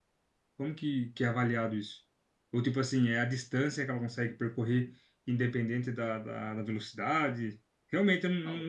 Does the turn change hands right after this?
Yes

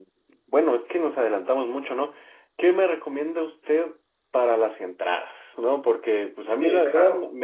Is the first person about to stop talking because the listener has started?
No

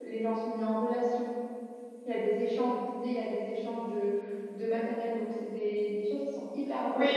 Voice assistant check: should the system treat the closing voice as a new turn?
Yes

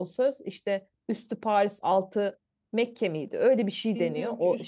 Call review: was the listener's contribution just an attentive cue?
No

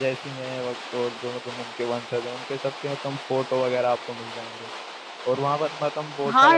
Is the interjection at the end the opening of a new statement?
Yes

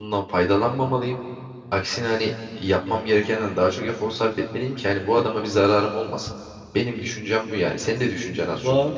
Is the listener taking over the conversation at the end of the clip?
Yes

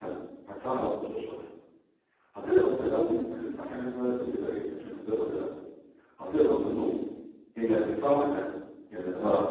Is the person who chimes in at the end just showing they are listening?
Yes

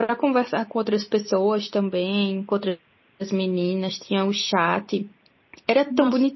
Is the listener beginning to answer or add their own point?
No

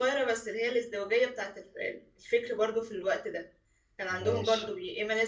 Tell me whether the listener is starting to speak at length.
No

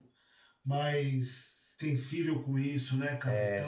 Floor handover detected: Yes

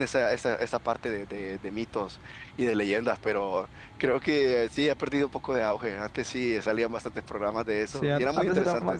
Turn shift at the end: Yes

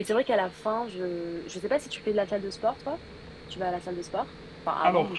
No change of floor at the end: No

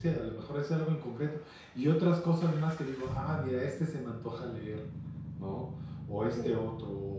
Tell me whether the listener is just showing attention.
Yes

